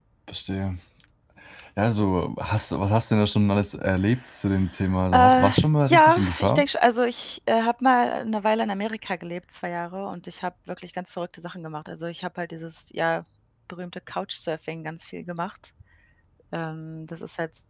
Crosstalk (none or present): present